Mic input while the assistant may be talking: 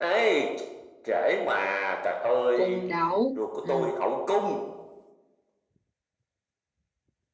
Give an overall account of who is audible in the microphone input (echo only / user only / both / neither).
both